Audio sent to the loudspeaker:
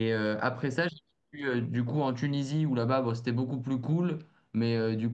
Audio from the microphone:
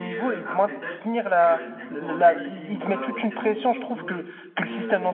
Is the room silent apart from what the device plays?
No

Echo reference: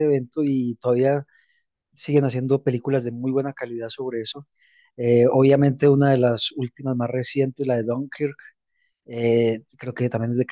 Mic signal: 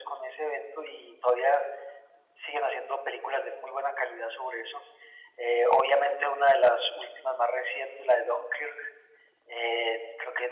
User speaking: No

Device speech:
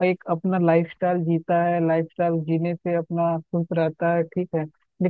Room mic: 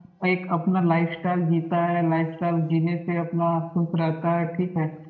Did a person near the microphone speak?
No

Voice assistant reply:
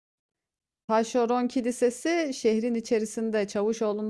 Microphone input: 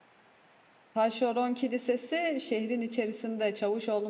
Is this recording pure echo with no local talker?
Yes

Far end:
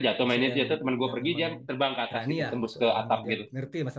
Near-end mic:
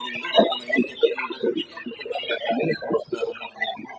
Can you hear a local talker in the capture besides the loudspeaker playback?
No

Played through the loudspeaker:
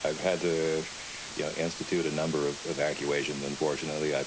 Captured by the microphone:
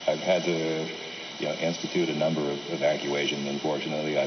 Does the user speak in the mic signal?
No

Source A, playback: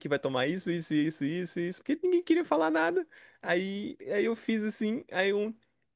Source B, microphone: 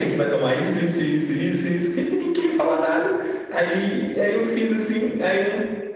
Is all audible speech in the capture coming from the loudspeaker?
Yes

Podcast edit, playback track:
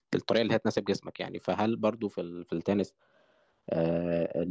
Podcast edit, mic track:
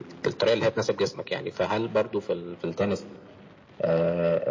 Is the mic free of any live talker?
Yes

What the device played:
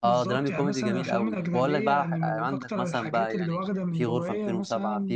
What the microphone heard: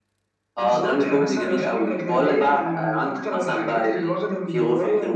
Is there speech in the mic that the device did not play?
No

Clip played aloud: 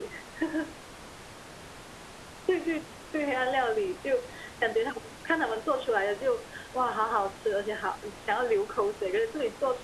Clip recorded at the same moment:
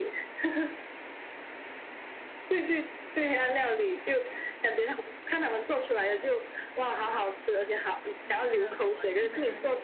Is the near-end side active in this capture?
Yes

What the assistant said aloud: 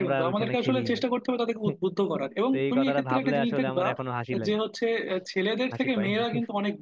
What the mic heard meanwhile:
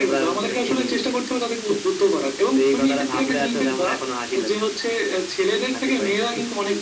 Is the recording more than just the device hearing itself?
No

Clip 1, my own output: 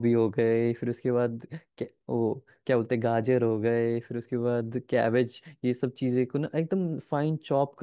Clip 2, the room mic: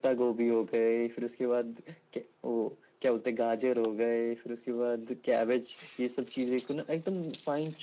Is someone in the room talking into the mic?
No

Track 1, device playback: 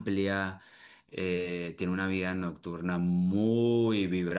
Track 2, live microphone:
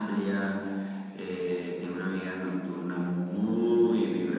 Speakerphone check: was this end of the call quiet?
Yes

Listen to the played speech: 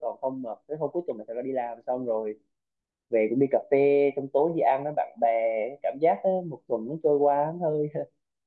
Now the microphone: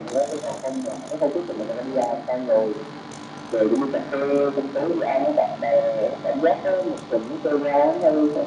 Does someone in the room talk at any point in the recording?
No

